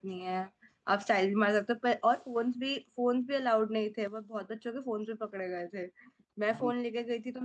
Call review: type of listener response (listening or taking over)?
listening